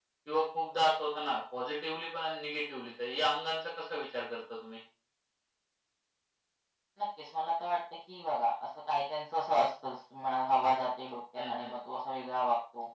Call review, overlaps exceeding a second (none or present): none